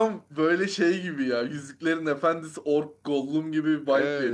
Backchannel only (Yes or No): No